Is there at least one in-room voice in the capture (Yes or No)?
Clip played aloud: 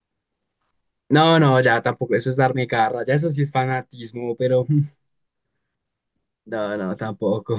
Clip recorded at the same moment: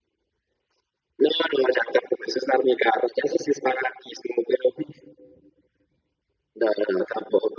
No